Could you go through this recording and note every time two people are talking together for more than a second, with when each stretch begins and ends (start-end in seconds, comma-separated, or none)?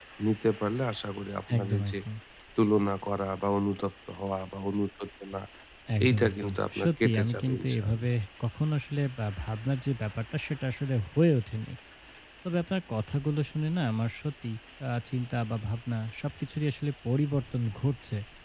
6.0-8.0